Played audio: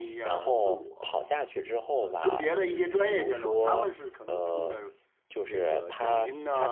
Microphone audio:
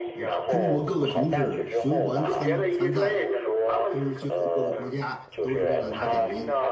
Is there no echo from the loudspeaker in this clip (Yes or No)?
No